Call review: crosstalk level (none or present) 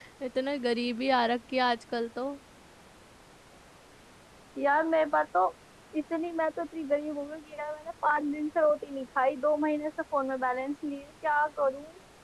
none